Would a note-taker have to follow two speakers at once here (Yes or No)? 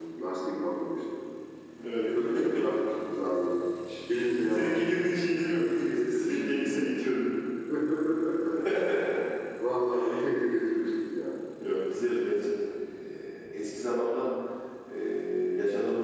Yes